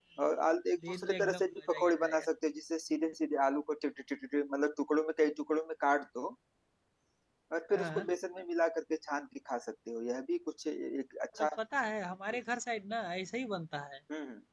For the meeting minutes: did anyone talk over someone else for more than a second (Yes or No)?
Yes